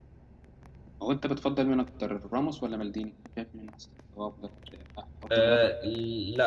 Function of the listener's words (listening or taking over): taking over